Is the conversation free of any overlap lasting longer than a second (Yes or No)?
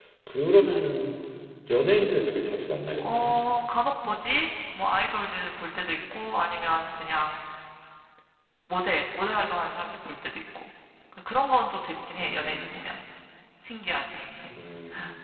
Yes